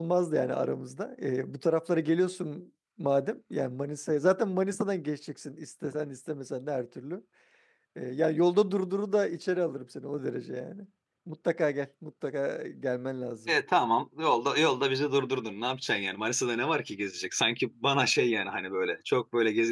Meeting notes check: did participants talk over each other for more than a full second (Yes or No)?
No